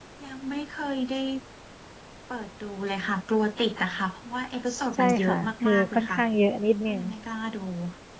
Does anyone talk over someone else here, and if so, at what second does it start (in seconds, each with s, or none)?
4.9 s